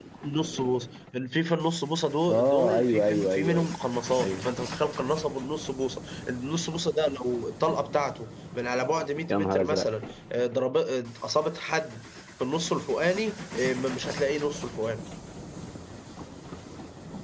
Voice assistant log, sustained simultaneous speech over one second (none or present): present